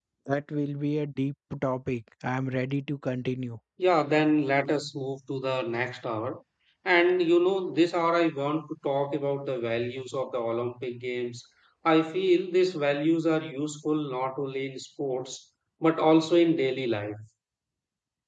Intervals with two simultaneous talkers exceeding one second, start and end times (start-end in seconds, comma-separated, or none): none